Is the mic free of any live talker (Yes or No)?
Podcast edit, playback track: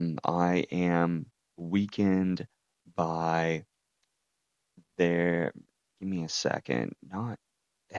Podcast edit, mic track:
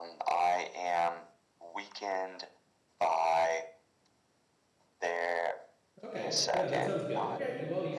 No